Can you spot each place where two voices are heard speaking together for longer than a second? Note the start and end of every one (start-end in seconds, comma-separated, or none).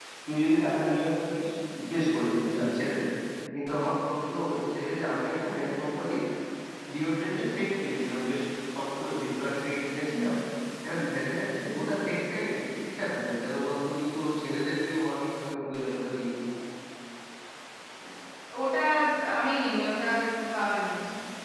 none